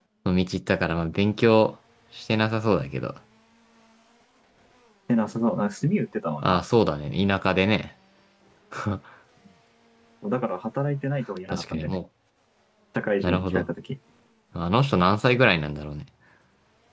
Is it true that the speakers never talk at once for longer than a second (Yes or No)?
Yes